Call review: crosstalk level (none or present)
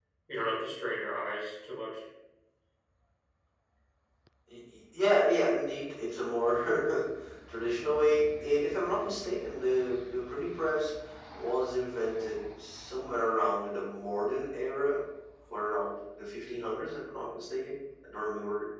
none